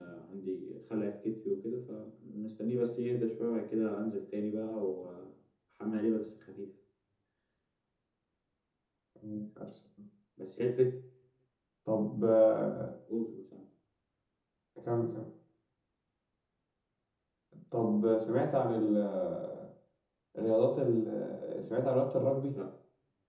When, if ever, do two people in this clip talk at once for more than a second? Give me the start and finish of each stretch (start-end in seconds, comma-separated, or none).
none